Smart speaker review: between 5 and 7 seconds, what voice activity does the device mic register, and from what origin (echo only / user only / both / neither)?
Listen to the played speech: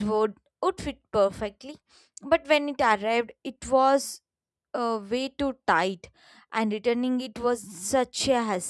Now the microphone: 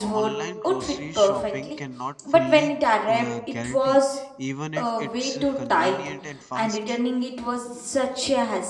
both